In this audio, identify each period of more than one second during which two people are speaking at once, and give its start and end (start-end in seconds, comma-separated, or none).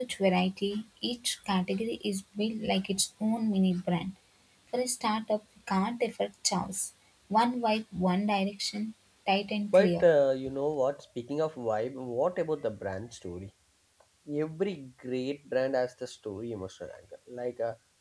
none